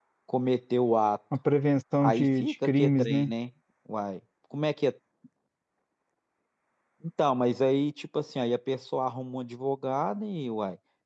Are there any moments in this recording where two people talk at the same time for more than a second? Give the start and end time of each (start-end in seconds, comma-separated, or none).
2.0-3.3